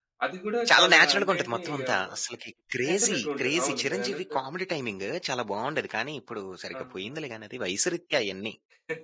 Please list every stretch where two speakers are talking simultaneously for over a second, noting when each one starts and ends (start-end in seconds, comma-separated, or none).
0.8-2.0, 2.9-4.4